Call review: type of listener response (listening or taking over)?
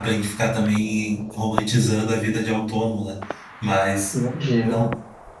listening